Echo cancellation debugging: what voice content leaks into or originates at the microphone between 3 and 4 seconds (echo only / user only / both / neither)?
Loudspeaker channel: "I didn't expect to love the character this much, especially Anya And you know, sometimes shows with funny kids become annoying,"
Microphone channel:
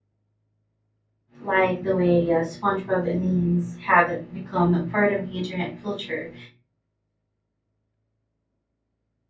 user only